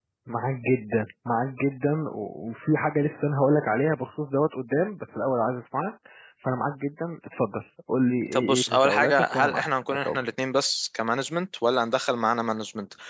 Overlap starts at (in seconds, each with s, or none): 8.3 s